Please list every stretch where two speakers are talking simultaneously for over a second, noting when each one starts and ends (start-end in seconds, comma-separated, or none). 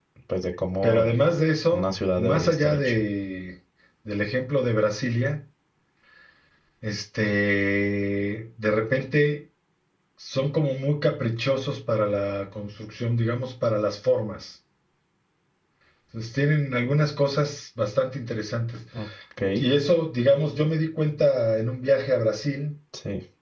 1.7-3.0